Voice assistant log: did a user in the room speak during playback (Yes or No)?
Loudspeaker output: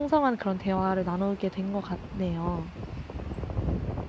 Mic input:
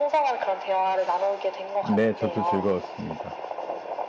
Yes